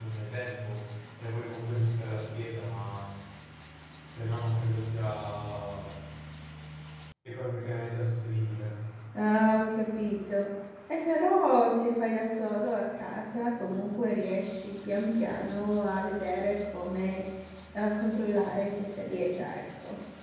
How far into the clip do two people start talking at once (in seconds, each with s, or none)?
none